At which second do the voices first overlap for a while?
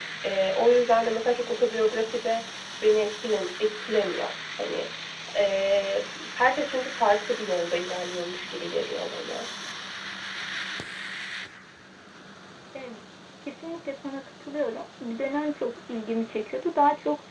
none

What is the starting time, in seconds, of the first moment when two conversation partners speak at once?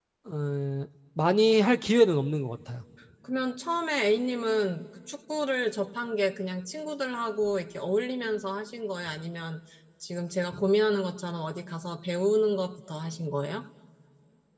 none

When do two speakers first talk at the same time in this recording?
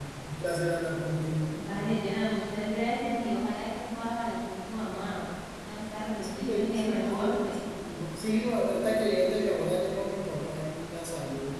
6.2 s

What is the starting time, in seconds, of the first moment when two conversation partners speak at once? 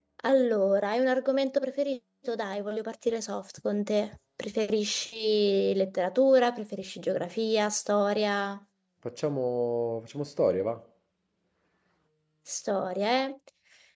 none

